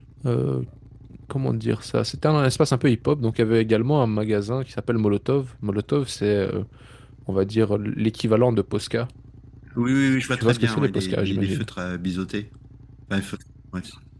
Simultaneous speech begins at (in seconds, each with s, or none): 10.3 s